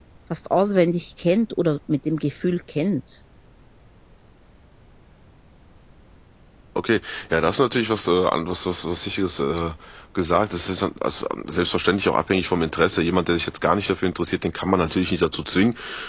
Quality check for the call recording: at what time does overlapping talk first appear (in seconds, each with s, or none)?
none